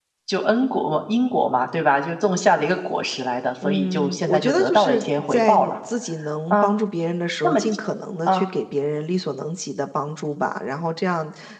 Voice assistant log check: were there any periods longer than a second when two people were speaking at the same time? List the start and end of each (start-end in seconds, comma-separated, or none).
3.6-5.7